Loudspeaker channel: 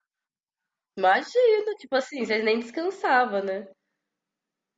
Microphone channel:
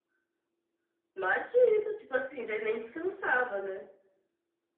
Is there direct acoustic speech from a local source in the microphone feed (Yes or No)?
No